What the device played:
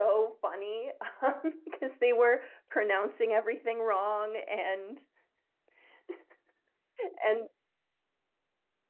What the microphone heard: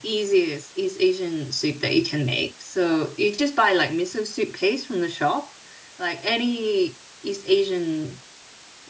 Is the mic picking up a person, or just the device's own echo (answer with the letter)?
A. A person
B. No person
A